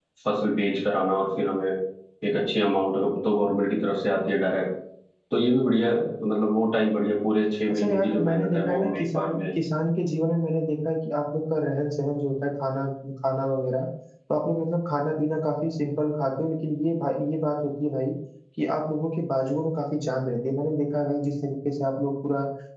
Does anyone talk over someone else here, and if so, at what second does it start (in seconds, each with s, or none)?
7.7 s